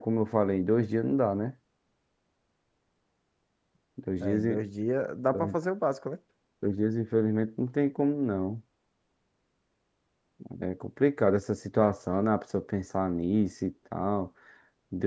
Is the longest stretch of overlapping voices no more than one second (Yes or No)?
Yes